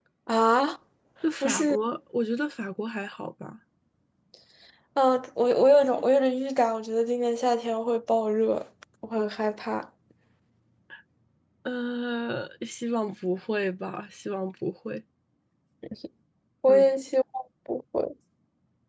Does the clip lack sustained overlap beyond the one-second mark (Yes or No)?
Yes